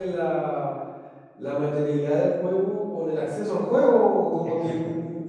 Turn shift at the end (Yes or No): No